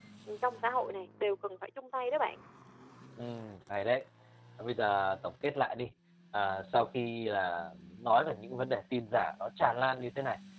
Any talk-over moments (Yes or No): No